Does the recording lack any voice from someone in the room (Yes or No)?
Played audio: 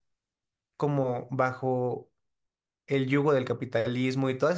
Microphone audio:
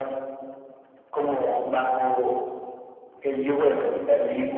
Yes